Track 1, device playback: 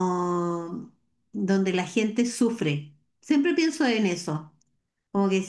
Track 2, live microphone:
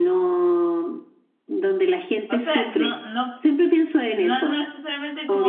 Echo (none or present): present